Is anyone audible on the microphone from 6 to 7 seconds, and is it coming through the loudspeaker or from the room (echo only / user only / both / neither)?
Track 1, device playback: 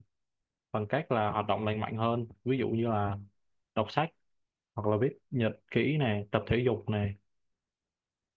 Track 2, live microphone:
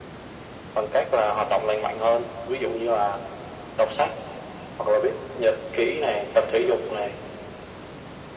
echo only